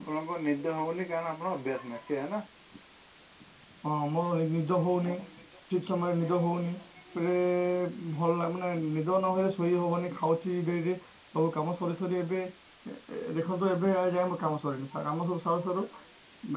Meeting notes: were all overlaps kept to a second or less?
Yes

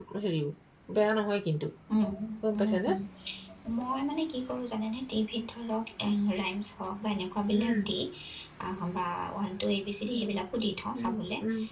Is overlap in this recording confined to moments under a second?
Yes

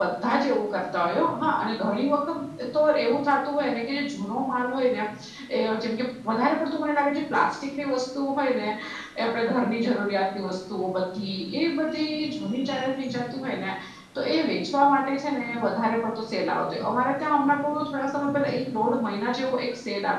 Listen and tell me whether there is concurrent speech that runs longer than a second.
No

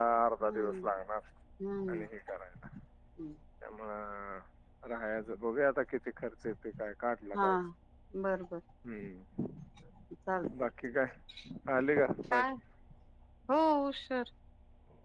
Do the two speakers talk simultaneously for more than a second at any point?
No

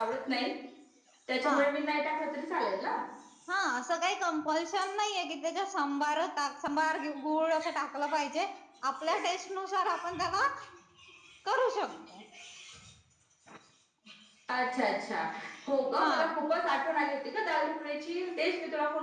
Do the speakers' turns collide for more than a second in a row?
No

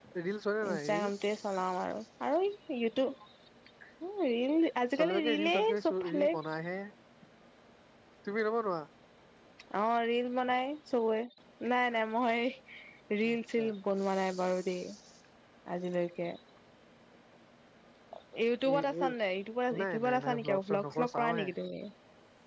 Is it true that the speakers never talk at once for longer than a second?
No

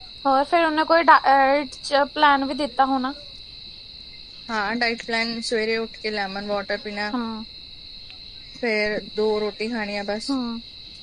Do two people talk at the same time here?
No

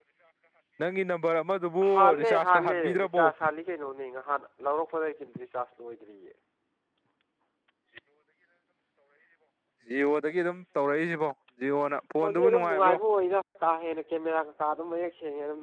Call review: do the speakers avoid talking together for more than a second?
No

